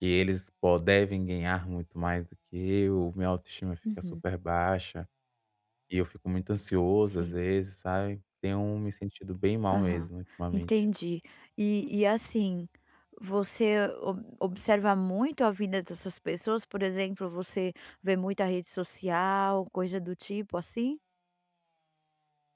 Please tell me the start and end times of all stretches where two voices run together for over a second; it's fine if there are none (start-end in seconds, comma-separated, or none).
none